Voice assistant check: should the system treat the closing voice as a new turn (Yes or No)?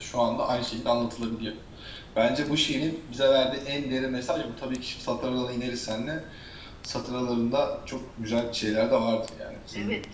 Yes